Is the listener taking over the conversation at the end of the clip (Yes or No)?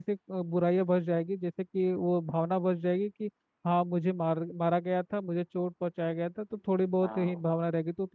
No